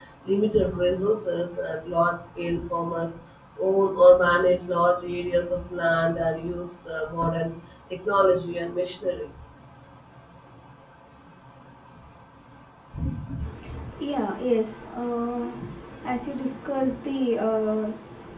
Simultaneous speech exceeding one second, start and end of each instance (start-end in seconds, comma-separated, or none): none